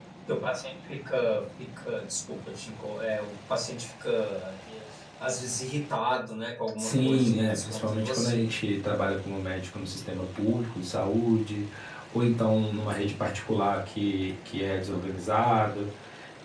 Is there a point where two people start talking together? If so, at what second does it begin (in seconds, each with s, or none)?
6.8 s